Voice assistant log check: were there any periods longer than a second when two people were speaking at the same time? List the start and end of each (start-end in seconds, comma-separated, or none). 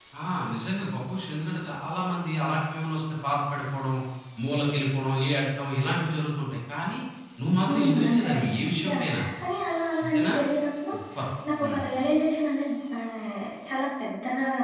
7.7-9.0